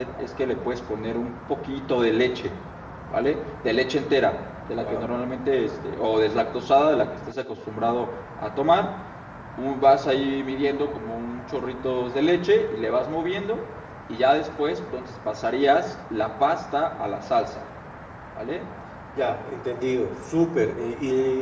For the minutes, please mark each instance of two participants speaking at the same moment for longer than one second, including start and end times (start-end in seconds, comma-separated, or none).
none